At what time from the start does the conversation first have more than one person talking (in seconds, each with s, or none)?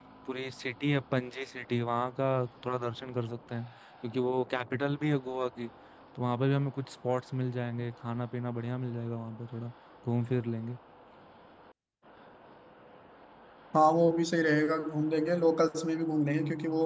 none